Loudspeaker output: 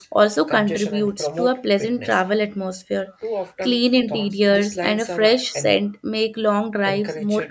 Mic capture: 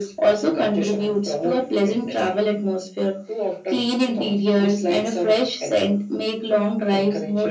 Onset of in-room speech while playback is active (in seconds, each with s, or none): none